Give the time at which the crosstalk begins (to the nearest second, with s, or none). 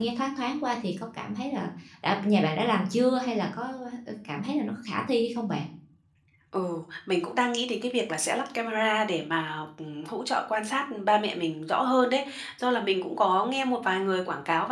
none